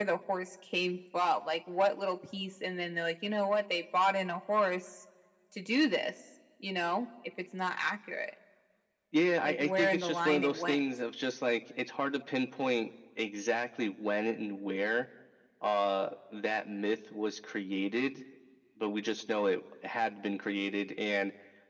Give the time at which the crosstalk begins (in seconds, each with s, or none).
9.4 s